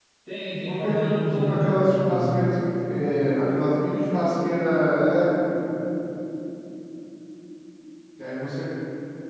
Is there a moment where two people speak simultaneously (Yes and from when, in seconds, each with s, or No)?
Yes, from 0.6 s